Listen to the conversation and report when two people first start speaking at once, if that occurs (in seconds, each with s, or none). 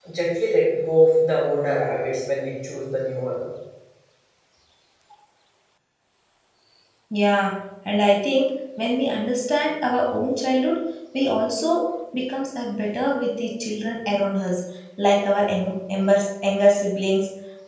none